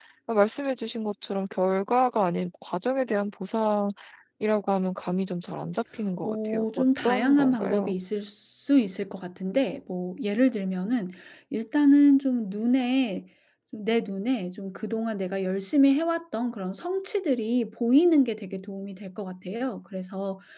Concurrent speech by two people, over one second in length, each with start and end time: 6.2-7.9

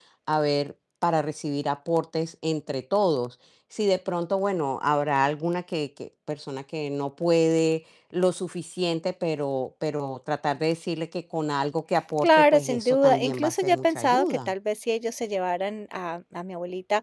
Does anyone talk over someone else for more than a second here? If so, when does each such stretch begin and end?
12.2-14.5

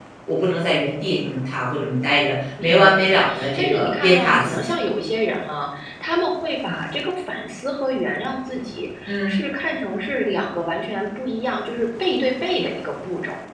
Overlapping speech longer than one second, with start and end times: 2.6-4.8

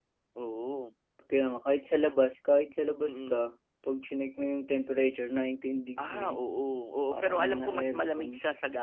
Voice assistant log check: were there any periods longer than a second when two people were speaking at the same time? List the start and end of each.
7.1-8.3

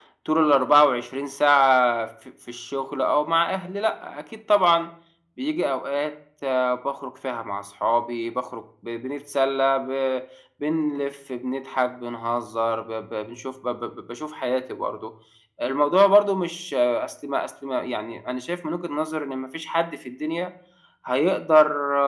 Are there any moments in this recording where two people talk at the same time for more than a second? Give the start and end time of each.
none

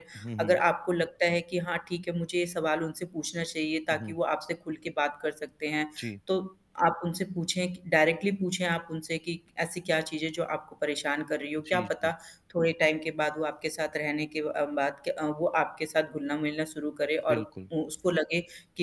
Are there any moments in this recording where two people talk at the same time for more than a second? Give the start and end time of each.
none

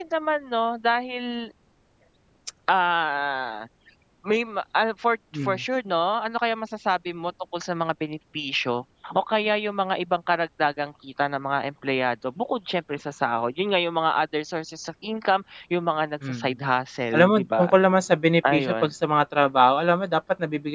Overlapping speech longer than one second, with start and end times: none

